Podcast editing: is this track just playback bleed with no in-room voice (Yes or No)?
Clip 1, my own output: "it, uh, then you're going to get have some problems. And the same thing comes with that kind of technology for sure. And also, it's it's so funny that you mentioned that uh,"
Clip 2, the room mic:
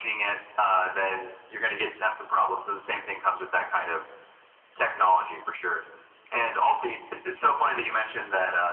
Yes